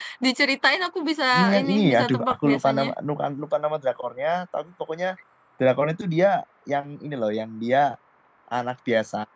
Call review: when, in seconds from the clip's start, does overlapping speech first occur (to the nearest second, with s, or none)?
2 s